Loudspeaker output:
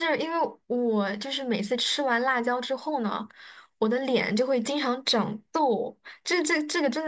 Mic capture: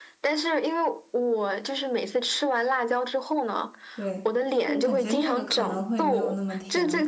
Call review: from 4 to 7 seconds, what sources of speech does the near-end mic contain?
both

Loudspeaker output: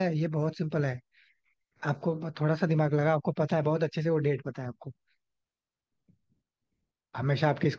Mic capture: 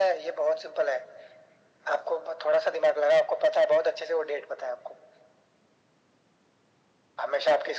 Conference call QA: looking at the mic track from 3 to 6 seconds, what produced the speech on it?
echo only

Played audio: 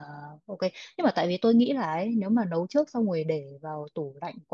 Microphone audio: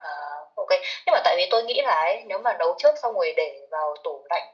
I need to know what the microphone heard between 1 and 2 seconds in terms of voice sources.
echo only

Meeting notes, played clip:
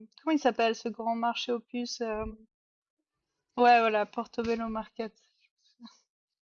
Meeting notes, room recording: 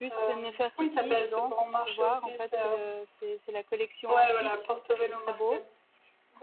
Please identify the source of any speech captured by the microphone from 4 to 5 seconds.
both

